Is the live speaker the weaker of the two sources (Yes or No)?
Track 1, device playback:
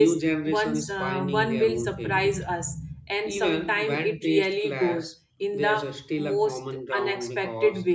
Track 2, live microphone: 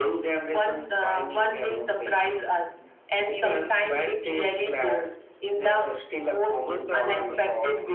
Yes